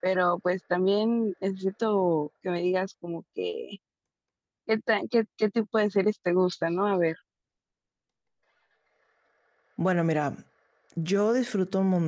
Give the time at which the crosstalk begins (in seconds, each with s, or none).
none